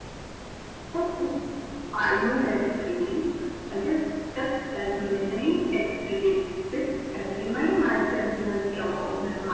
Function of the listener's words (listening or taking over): taking over